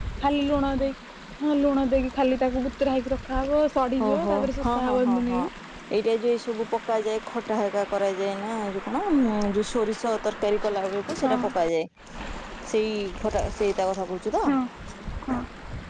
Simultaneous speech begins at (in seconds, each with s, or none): 4.0 s